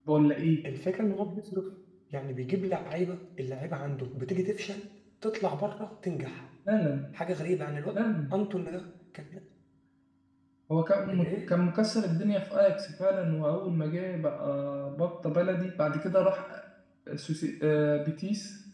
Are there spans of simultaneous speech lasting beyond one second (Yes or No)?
No